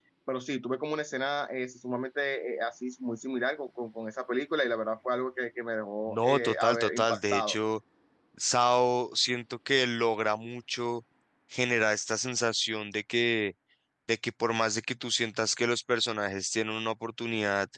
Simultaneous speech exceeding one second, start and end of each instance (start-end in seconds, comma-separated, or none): 6.1-7.6